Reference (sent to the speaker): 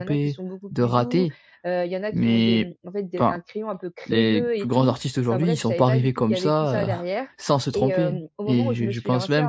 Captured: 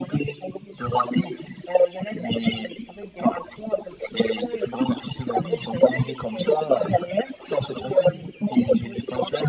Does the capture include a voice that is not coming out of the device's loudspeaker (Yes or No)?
No